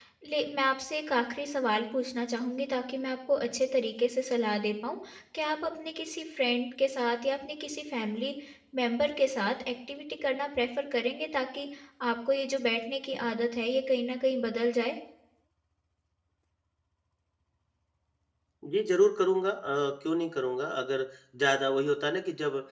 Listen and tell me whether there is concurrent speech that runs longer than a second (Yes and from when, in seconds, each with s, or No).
No